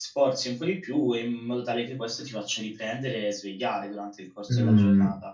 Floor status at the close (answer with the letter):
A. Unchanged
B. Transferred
B